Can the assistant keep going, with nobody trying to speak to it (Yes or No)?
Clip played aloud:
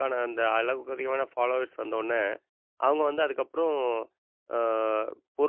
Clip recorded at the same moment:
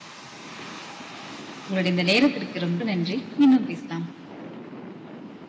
No